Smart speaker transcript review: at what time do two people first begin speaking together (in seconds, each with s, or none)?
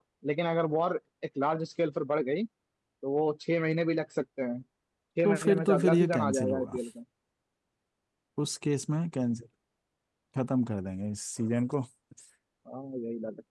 5.2 s